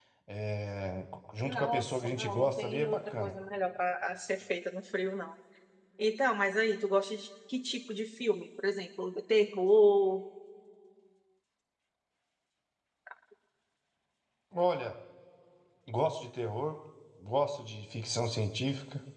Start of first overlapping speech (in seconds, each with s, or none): 1.4 s